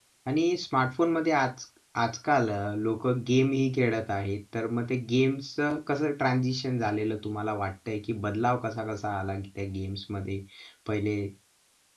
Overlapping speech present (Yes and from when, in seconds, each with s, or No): No